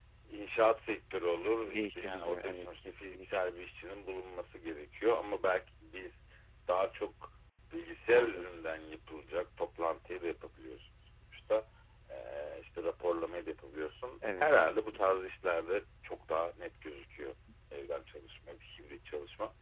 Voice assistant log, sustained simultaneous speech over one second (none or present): present